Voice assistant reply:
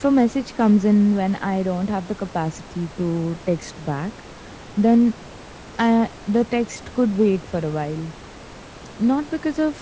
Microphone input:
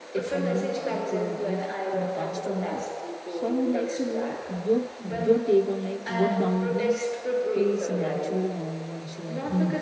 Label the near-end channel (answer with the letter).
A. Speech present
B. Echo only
A